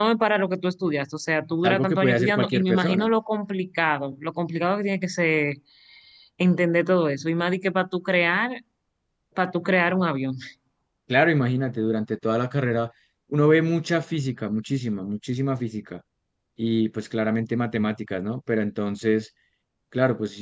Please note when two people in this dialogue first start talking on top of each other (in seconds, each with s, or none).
1.6 s